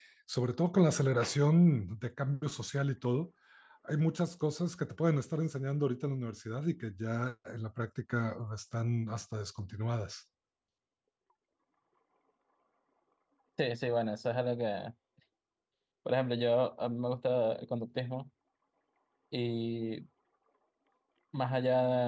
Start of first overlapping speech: none

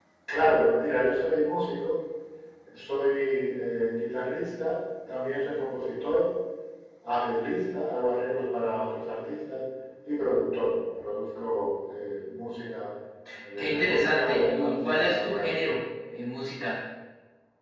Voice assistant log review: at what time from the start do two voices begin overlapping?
13.6 s

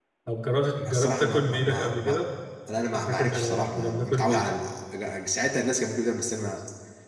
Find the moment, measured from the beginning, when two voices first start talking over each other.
0.8 s

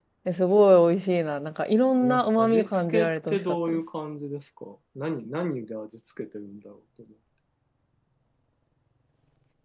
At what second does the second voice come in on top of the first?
2.0 s

